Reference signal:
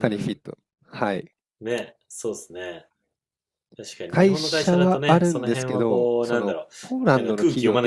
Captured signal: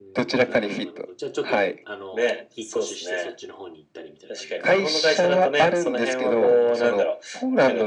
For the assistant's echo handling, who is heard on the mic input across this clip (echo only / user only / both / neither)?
both